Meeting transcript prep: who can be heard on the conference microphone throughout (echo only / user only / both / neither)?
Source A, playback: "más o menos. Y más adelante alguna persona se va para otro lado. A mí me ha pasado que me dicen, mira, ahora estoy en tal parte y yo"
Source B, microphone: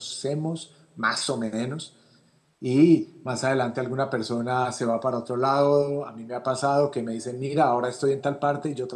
echo only